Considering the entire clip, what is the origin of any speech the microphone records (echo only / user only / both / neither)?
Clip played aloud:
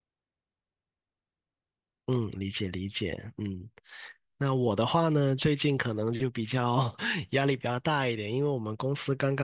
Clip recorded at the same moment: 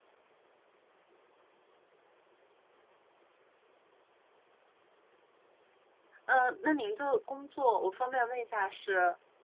user only